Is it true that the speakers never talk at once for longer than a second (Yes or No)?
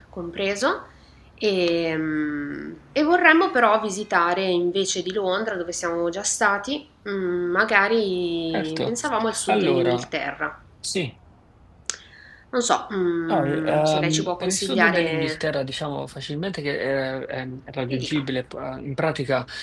No